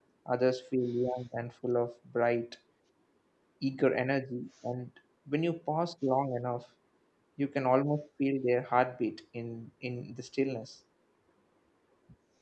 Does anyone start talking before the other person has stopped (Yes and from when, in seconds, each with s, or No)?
No